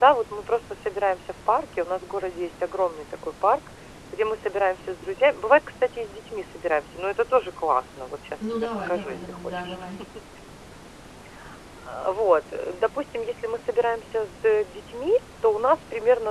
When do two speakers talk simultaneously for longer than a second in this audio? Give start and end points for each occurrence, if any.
8.5-9.8

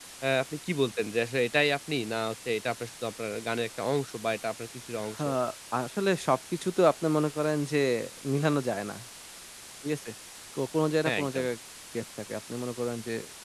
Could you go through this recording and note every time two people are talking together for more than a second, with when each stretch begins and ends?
none

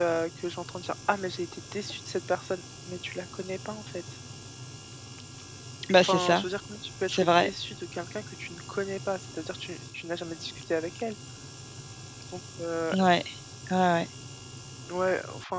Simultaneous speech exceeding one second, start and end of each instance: none

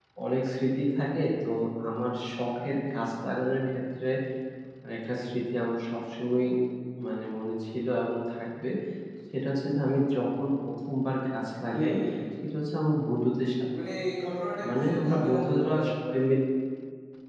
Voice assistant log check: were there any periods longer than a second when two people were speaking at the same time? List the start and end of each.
14.7-16.2

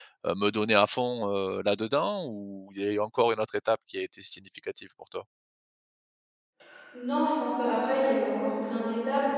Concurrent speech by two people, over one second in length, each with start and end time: none

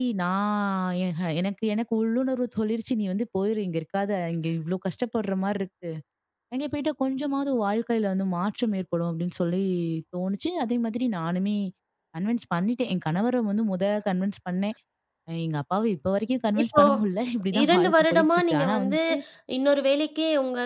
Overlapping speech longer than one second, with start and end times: 17.6-19.0

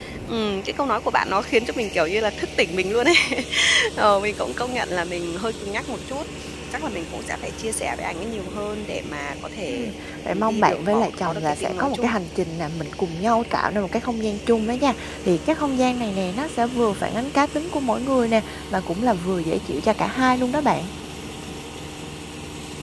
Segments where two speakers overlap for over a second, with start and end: 10.3-12.1

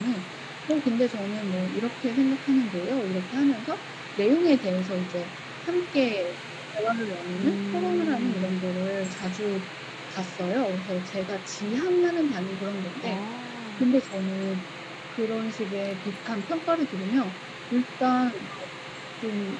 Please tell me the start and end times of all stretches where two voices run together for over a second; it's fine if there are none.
7.3-8.6

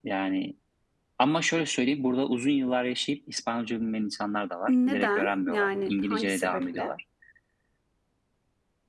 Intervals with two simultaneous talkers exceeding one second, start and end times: 4.7-6.9

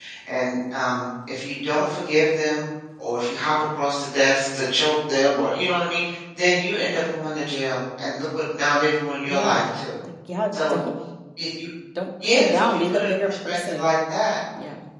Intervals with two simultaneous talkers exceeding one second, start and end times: 12.2-13.9

